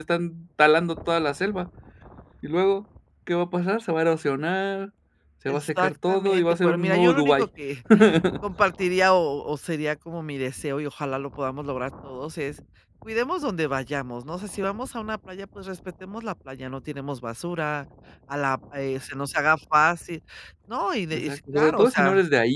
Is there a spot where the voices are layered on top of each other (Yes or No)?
Yes